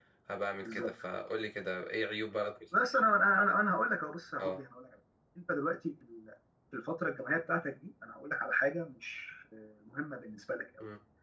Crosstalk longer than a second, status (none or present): none